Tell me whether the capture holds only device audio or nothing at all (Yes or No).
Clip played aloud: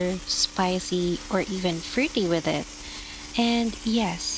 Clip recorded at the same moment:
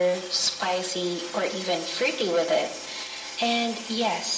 Yes